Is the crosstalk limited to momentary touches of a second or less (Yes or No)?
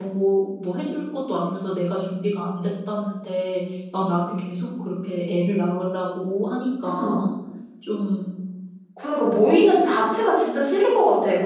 Yes